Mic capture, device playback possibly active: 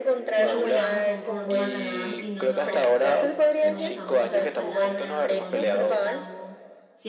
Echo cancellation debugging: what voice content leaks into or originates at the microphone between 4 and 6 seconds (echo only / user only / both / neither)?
both